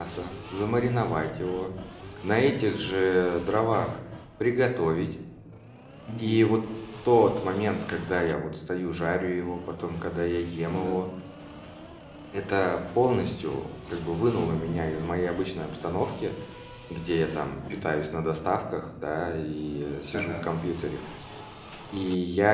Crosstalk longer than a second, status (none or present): none